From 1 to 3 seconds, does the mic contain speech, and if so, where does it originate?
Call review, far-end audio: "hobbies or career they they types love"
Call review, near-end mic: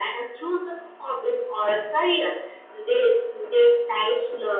echo only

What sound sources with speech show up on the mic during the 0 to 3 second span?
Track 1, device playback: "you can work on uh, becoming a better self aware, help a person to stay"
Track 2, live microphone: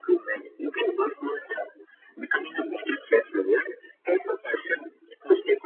echo only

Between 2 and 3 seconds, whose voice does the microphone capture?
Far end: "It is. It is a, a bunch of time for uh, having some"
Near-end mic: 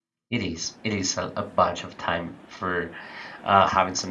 echo only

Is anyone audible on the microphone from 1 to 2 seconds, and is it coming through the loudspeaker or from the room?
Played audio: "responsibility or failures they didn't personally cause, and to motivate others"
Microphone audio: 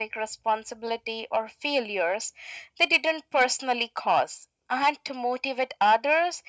echo only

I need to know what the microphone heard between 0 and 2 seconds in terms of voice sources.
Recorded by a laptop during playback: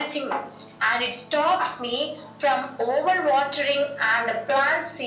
echo only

